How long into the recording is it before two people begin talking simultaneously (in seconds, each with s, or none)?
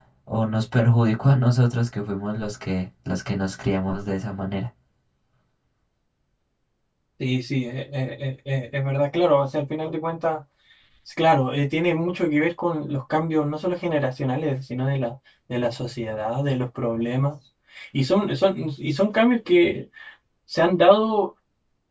none